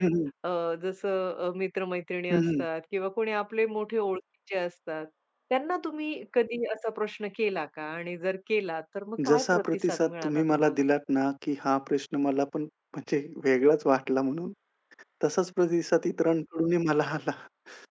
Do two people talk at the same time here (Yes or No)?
Yes